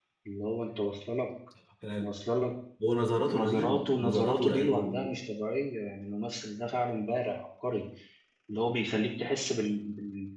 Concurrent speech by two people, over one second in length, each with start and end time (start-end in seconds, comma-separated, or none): 3.3-5.1